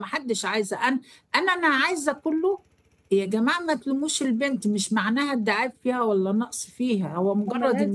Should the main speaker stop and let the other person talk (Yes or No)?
No